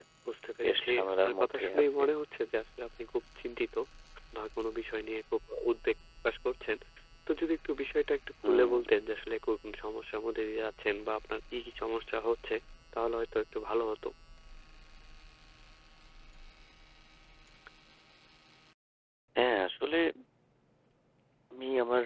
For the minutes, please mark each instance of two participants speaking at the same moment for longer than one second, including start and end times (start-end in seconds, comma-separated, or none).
0.6-2.0